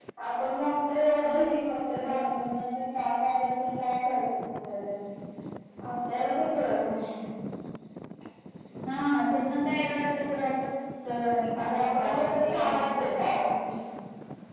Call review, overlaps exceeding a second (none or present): present